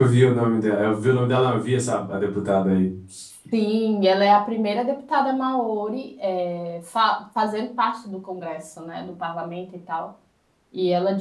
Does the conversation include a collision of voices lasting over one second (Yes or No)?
No